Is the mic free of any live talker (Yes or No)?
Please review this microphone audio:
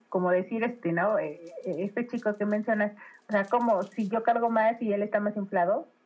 Yes